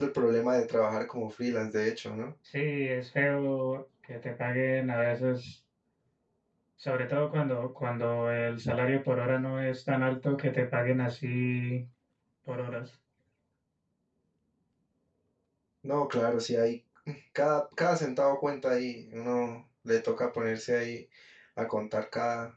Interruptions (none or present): none